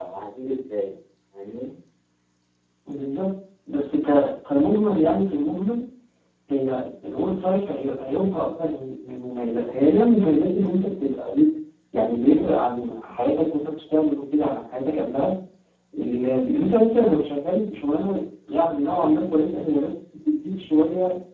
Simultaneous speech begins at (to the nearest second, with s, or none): none